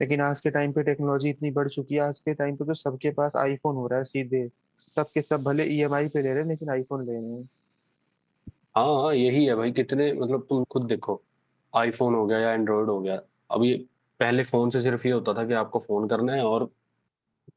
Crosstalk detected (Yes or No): No